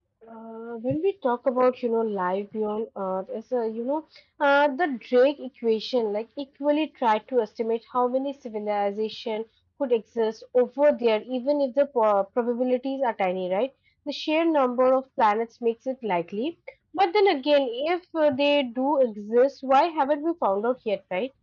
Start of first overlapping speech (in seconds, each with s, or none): none